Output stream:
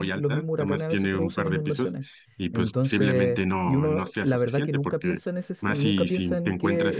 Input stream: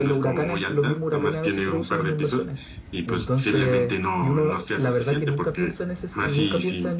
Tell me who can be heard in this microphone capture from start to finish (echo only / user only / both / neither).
echo only